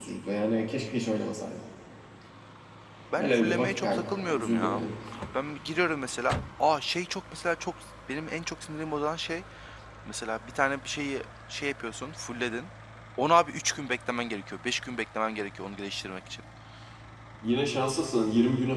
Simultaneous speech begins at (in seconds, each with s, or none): 3.2 s